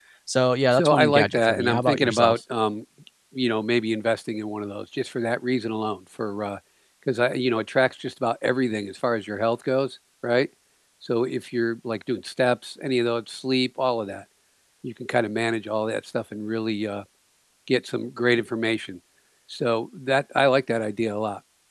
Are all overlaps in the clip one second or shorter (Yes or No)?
No